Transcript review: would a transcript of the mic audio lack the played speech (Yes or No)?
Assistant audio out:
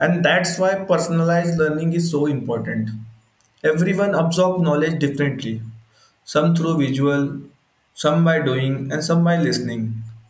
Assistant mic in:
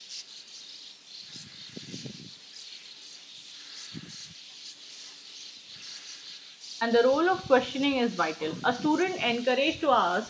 Yes